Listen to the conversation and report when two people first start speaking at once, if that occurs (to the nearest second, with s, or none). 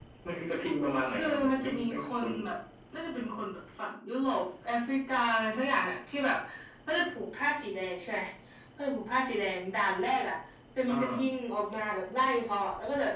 1 s